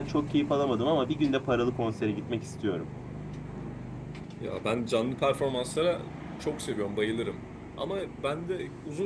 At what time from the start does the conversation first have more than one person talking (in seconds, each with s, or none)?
none